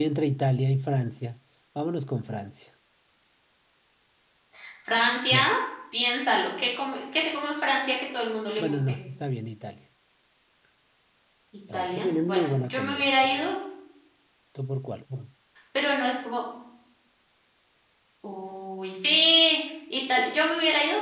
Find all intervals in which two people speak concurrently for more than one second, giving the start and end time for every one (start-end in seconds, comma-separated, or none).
11.7-13.5